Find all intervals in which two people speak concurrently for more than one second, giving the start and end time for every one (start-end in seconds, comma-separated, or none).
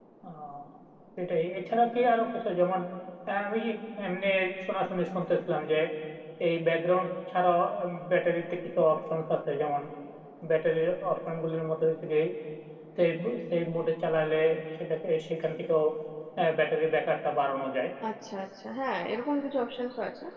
none